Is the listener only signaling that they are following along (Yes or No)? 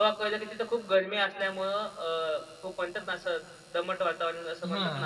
No